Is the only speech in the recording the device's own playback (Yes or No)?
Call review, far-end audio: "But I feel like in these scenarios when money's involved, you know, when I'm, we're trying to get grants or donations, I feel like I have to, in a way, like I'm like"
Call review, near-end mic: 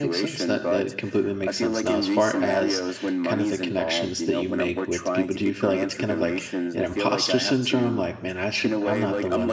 No